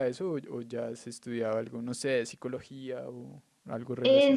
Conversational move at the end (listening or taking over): taking over